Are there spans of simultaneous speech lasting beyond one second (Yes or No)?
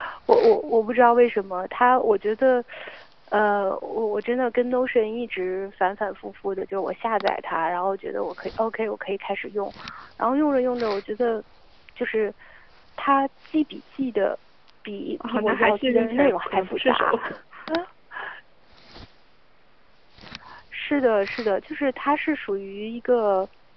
Yes